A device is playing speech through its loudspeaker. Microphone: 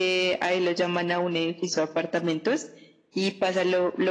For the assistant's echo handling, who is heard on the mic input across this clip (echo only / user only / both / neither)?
echo only